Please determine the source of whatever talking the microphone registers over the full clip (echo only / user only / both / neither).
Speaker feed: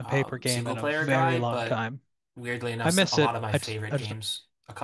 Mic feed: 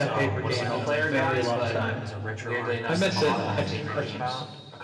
both